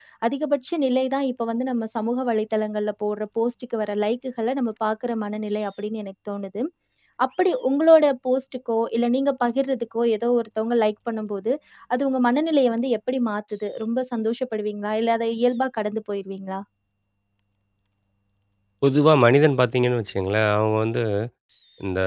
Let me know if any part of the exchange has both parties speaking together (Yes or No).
No